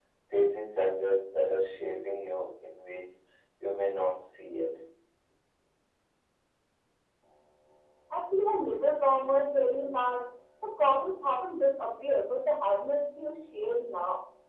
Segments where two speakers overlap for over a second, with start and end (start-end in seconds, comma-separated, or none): none